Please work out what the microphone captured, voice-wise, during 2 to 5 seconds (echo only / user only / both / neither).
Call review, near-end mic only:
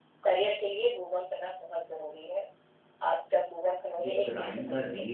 both